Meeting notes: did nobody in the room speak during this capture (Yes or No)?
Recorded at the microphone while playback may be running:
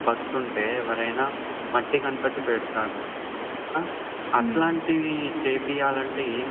No